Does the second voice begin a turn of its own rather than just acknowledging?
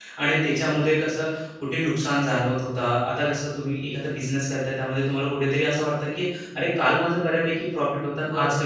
Yes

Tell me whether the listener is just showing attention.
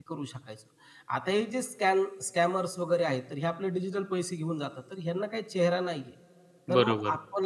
Yes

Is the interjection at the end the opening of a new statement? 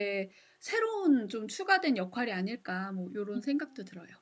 Yes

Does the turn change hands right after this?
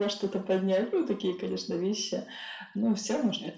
No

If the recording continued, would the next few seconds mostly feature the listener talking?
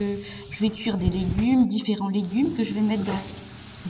No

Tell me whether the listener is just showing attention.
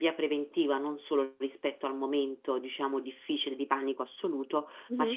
Yes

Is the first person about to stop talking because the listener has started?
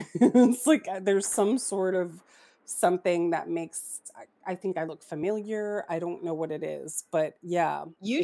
Yes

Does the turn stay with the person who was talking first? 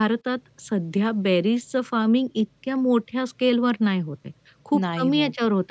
Yes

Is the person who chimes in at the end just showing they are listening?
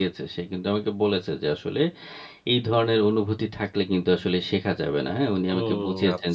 No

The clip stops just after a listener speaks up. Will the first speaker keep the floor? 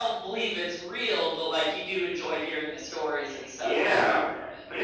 No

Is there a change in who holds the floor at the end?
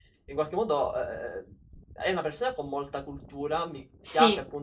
No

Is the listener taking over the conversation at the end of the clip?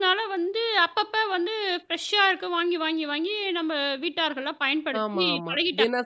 Yes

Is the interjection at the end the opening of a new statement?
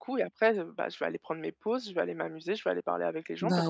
Yes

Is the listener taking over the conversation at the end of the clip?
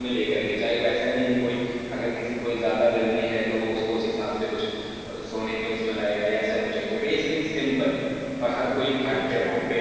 Yes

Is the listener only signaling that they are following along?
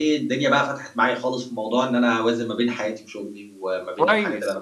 No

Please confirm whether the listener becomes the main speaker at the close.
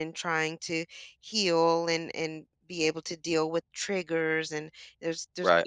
No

